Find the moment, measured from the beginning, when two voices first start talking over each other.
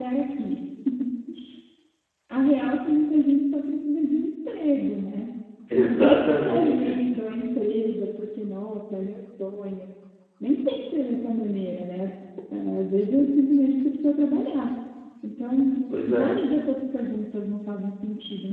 5.7 s

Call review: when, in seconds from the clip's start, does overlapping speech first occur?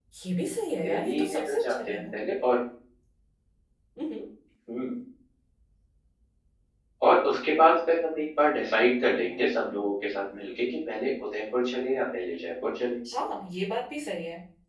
0.8 s

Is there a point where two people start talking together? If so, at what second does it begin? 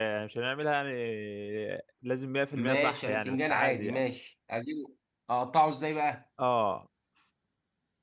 2.5 s

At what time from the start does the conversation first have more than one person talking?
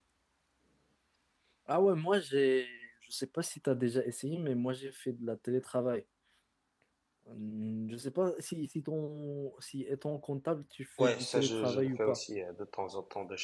11.0 s

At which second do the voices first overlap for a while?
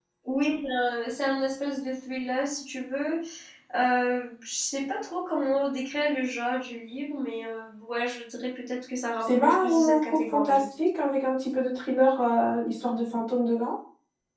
9.2 s

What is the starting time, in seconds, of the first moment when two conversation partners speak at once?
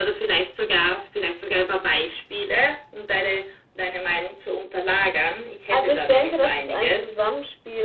5.7 s

